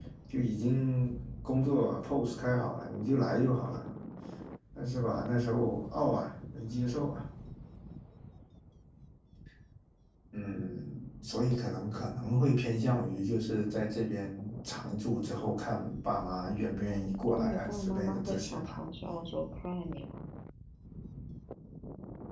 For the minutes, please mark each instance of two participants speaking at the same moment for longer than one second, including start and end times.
17.3-18.7

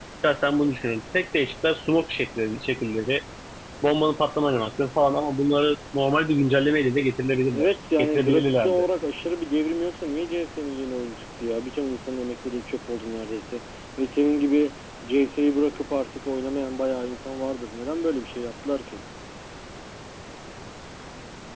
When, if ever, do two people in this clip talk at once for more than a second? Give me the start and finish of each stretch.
7.5-8.8

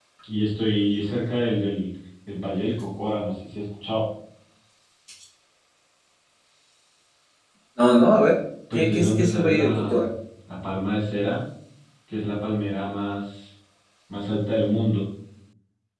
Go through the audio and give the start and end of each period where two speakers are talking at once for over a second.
8.7-10.1

